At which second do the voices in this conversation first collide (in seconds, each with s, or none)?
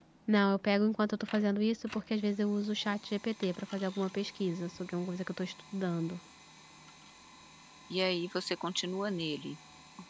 none